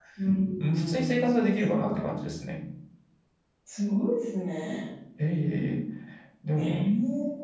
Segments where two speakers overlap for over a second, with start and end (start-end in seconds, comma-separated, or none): 0.6-2.0